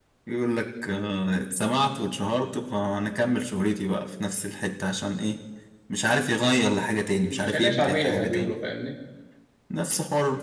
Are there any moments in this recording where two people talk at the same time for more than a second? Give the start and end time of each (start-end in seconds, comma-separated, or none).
7.3-8.5